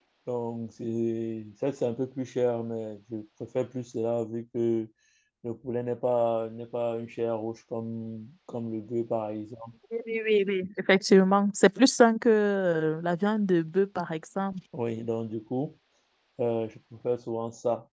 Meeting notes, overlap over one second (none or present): none